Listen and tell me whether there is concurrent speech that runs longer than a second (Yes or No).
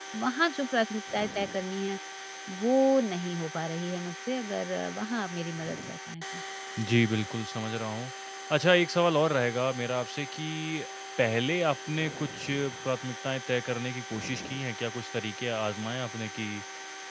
No